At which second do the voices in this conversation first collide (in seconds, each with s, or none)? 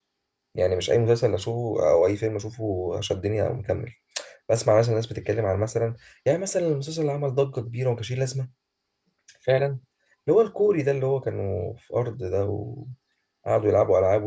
none